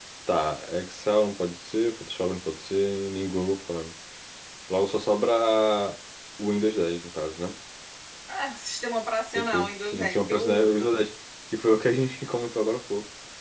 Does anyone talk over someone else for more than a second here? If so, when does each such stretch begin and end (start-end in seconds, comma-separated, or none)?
9.3-11.0